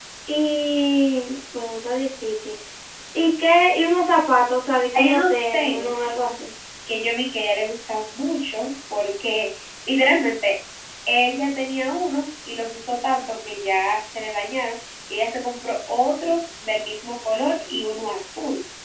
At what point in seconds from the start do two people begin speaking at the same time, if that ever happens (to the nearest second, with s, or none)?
5 s